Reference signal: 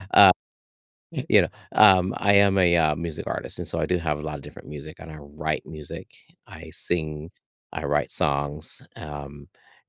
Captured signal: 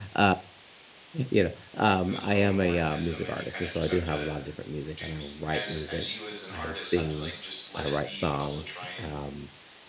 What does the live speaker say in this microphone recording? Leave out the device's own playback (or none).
It's its own organism, and you kinda just have to do as as you as an artist have to, like, just let it be, but also try and